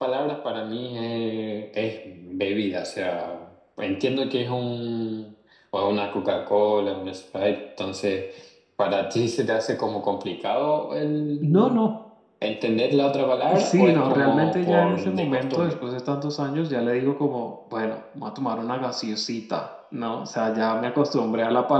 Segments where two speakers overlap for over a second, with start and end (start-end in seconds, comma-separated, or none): 13.6-15.7